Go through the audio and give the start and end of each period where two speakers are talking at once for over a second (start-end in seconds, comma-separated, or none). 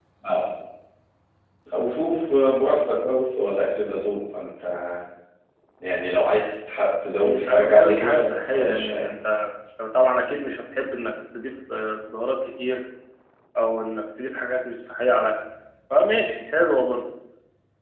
7.2-9.1